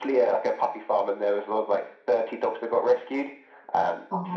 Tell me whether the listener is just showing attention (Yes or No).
Yes